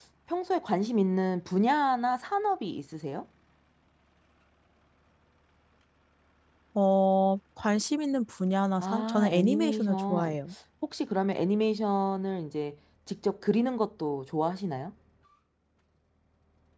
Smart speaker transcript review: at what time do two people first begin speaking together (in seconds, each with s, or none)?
8.8 s